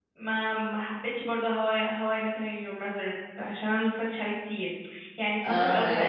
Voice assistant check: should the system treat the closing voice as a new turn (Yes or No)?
No